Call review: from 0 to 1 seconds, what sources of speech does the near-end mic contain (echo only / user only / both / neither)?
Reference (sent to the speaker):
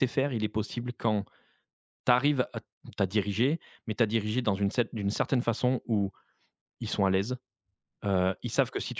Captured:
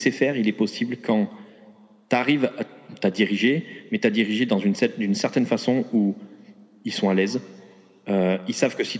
echo only